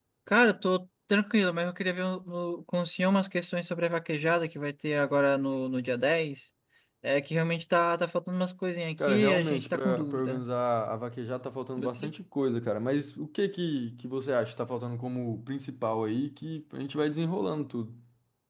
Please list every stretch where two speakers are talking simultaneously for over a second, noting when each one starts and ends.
9.0-10.4

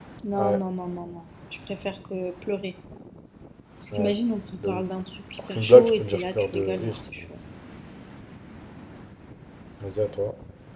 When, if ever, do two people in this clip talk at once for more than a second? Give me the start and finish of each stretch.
5.4-7.2

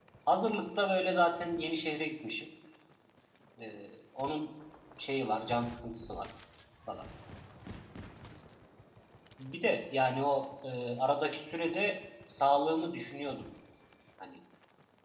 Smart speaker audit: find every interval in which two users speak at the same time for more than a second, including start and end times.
none

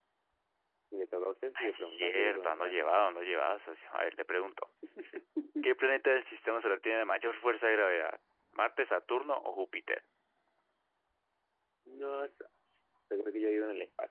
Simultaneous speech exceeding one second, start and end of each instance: 1.6-2.8

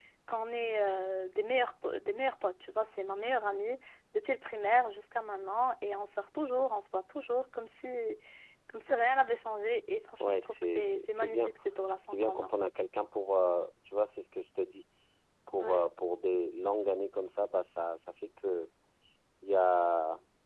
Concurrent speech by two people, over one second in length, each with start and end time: 10.2-11.5

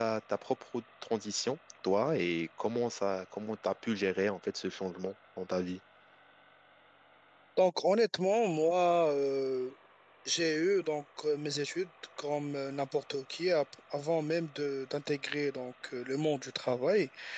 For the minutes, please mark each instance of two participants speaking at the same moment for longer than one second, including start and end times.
none

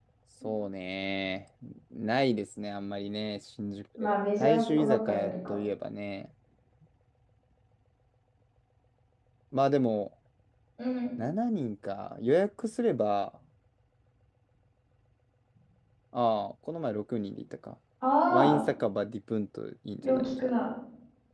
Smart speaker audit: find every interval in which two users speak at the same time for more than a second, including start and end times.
4.0-5.6

